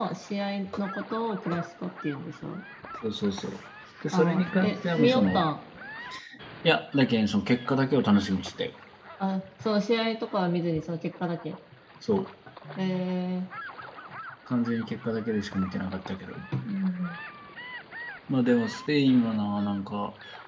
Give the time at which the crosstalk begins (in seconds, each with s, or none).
4.1 s